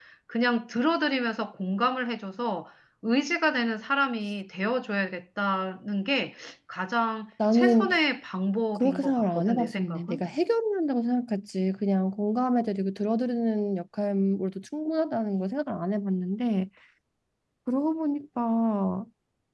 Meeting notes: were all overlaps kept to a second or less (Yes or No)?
No